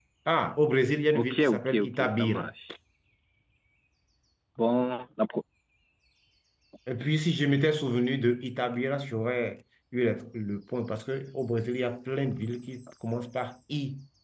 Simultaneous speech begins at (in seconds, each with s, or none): 1.1 s